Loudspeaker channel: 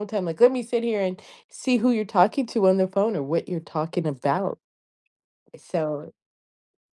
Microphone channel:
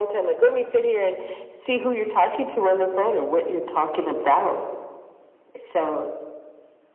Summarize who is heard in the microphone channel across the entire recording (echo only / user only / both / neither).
echo only